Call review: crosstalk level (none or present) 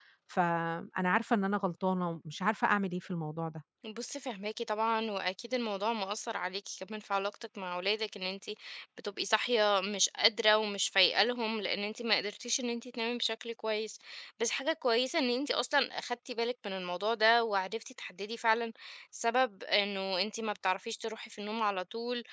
none